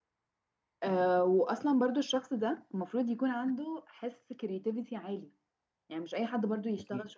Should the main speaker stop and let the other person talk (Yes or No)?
No